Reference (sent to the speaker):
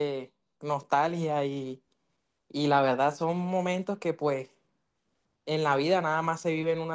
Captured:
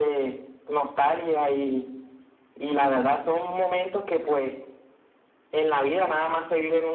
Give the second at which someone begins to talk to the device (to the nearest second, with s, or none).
none